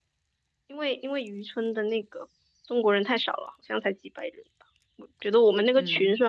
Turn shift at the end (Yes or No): No